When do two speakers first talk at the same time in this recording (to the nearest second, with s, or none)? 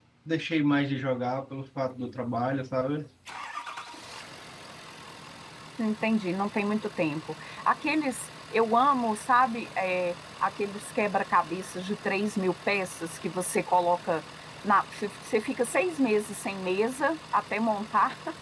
none